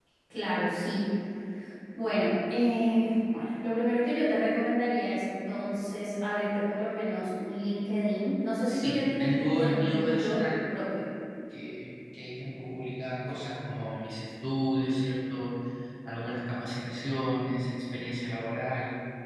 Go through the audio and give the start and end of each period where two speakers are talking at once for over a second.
8.7-10.4

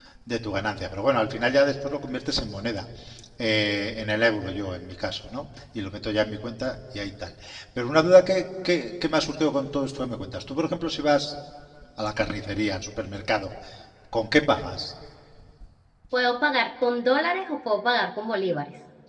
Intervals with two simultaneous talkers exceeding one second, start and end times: none

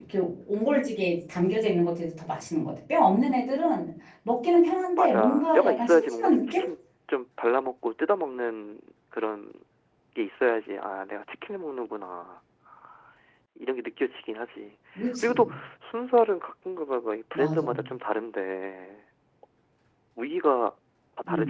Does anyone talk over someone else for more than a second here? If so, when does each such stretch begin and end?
5.0-6.6

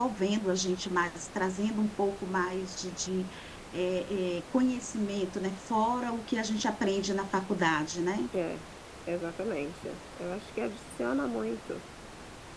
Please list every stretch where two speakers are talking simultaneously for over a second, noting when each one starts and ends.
none

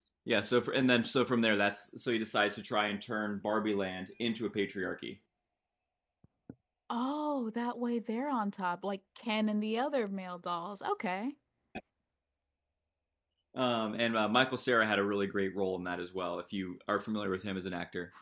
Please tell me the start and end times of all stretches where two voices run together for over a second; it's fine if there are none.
none

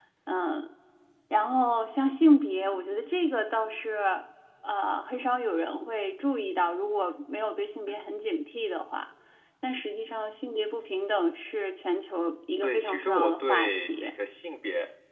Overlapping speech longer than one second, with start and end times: 12.6-14.1

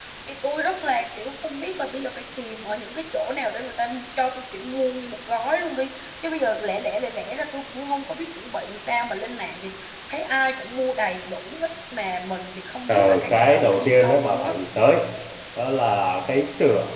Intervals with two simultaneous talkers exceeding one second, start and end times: 12.9-14.5

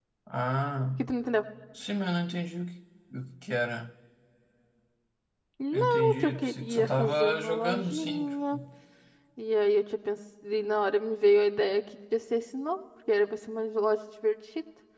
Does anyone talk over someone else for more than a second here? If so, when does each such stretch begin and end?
5.7-8.6

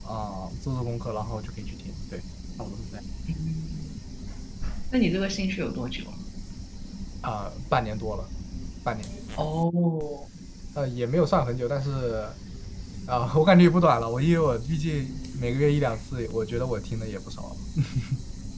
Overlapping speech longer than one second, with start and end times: none

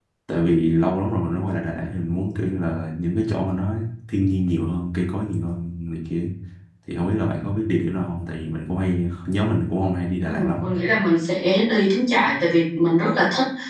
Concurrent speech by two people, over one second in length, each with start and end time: none

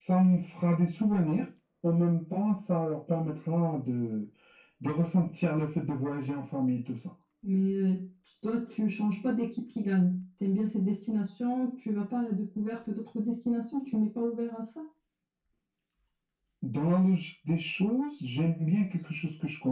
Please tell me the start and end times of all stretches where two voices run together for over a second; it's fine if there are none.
none

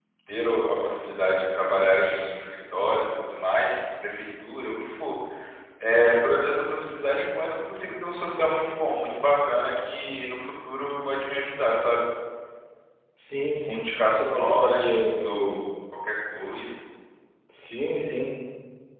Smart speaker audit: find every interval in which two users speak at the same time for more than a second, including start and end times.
13.7-15.6

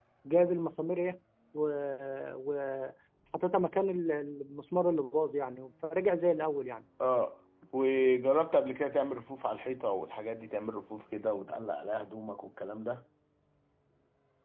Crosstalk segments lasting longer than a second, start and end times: none

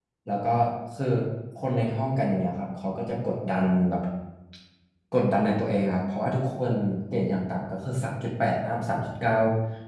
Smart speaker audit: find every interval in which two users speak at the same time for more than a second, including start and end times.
none

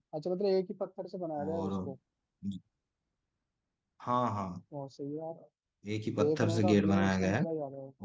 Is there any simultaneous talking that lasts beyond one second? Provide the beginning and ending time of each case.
6.2-7.4

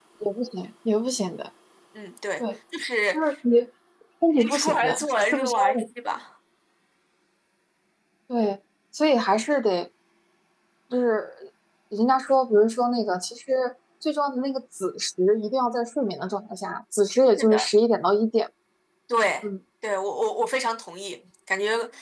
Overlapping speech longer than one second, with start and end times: 4.4-5.8

